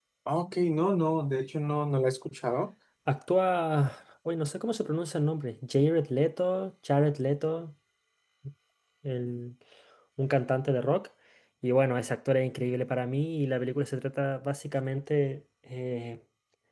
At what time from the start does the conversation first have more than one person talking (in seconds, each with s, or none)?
none